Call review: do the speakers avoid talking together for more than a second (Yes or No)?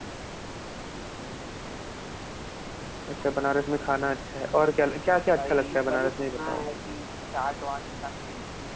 No